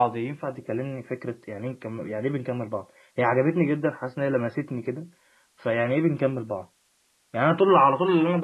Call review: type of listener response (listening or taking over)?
listening